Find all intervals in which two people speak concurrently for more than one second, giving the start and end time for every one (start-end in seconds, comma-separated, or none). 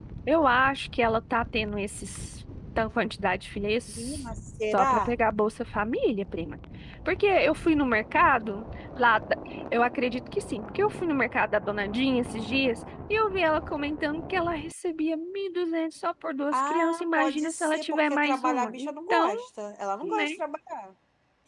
16.5-19.3